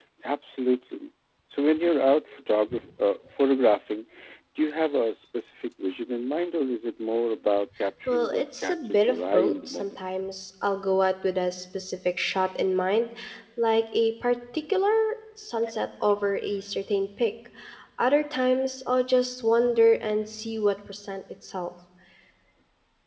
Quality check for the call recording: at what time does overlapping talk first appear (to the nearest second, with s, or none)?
8 s